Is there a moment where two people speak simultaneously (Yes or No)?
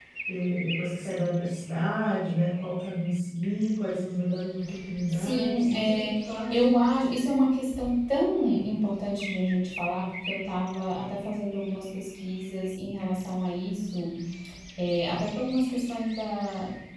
Yes